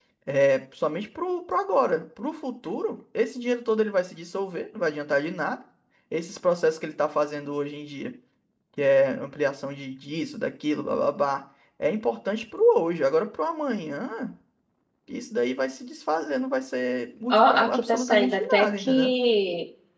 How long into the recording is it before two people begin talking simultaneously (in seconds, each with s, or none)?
17.3 s